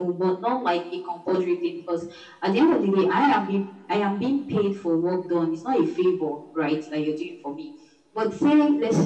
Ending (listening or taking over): listening